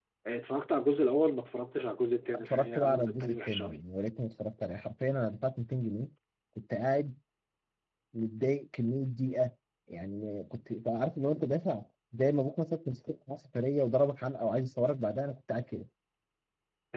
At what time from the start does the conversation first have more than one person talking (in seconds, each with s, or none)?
2.3 s